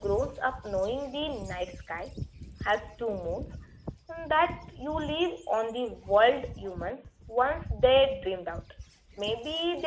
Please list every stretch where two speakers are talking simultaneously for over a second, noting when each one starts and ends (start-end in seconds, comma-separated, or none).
none